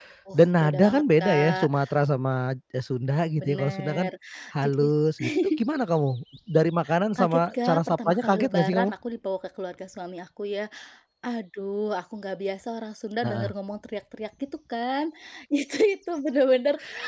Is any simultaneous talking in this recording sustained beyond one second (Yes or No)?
Yes